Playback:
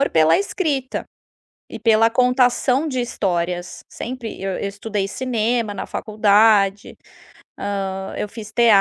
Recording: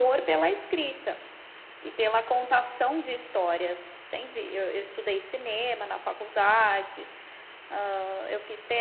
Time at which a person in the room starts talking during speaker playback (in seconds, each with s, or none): none